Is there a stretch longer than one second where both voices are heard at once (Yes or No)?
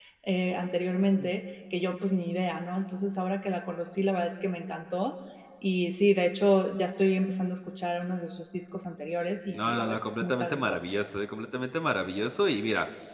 Yes